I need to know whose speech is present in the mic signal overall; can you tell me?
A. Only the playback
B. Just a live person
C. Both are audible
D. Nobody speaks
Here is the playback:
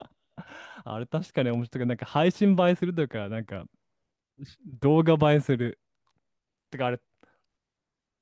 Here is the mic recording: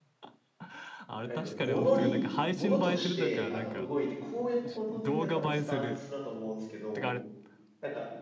C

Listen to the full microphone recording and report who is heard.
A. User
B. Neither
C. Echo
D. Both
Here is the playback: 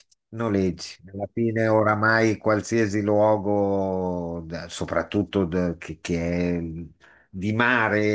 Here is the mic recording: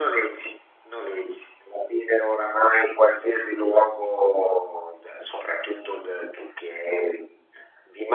C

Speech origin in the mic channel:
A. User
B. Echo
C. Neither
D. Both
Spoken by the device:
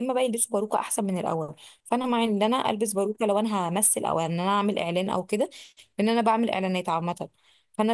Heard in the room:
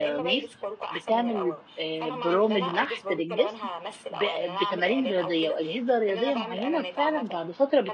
D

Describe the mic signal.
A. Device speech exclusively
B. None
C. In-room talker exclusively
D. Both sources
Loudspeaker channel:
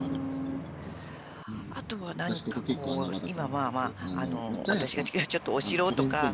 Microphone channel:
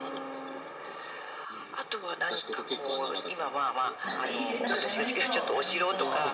D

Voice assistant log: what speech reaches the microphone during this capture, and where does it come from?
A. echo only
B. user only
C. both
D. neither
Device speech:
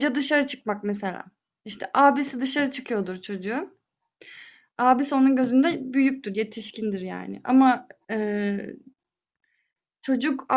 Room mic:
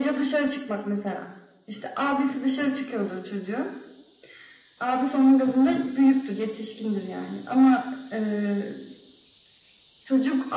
A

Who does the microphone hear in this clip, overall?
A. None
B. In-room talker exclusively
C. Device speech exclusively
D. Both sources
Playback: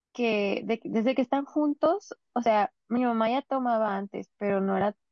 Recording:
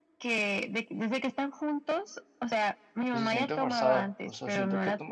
D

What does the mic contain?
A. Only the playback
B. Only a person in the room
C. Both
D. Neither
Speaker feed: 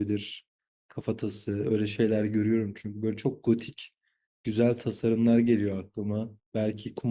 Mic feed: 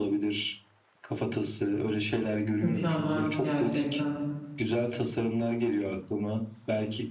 C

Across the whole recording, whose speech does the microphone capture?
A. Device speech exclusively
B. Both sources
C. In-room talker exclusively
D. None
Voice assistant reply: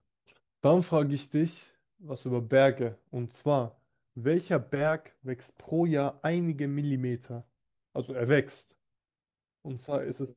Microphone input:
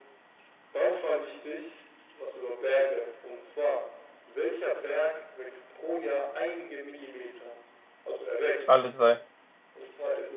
B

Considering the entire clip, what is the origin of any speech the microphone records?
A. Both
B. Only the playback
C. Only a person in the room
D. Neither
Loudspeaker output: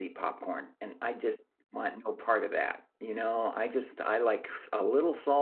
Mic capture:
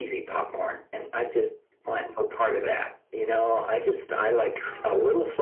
B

